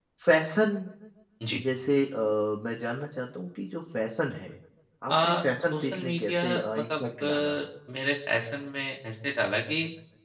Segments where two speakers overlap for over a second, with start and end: 5.7-7.6

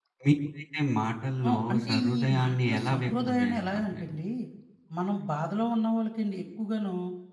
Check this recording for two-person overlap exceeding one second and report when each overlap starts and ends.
1.5-4.0

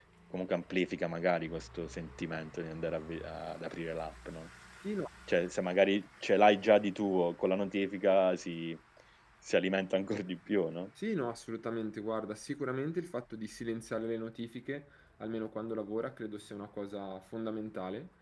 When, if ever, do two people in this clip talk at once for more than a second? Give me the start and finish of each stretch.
none

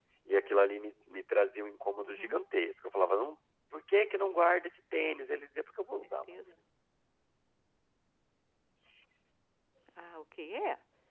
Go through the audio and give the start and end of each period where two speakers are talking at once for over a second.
none

